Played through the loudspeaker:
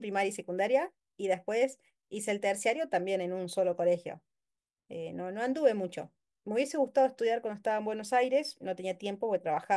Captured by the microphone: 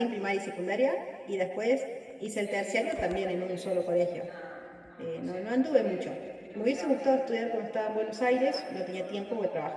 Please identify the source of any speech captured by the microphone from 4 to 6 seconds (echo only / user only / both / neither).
both